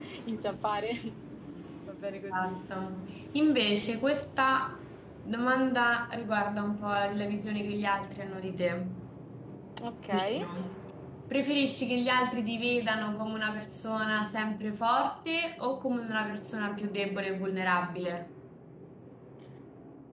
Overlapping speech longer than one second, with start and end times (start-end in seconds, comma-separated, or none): none